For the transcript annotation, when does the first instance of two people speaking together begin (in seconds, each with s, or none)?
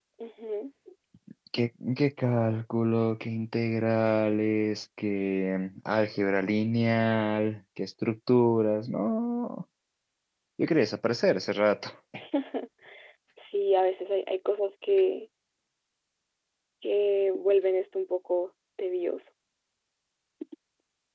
none